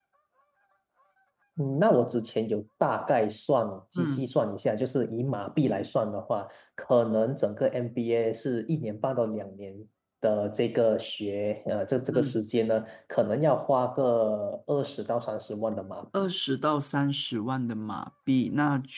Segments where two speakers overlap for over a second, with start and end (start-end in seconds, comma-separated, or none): none